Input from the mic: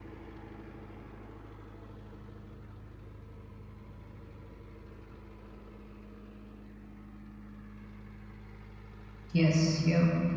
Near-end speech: present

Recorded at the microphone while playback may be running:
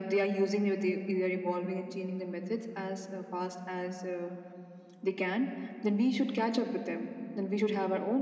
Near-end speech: none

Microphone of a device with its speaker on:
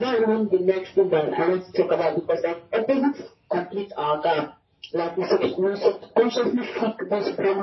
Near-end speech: none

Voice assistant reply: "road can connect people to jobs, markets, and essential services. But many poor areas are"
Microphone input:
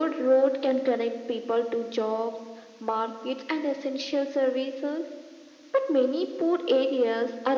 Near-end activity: none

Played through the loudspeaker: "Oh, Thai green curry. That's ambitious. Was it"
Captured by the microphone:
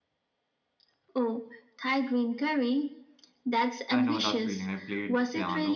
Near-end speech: present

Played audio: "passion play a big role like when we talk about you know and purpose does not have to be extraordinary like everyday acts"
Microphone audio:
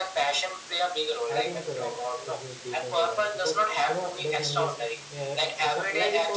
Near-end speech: present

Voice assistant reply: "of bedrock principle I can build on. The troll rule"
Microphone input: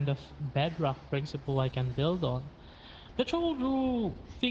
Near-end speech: none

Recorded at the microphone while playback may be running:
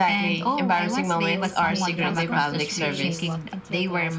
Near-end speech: present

